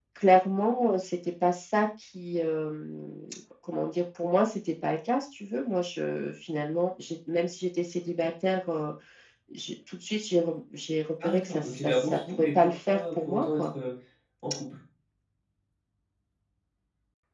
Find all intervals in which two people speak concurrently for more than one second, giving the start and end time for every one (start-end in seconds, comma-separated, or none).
11.2-13.7